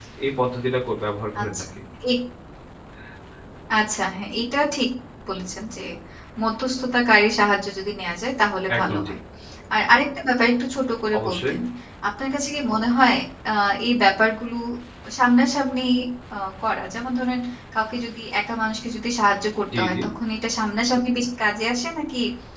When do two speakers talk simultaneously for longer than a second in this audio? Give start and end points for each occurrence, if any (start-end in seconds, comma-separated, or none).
none